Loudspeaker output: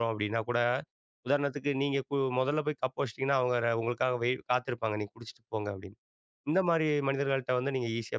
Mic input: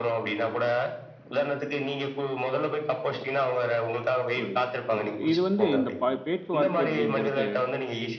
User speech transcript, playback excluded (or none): புரியுது, புரியுது. இது வந்து இந்த ப பேச்சுவார்த்தை அப்படிங்கறது,